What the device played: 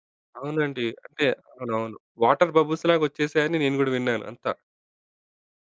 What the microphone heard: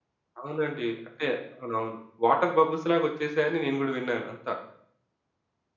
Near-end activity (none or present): none